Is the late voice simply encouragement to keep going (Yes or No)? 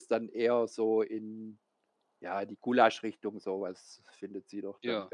Yes